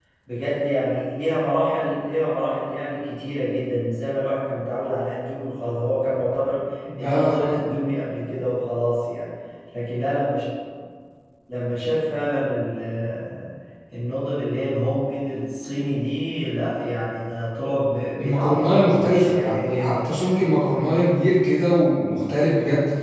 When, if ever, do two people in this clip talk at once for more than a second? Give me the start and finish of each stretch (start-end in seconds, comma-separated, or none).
18.2-20.3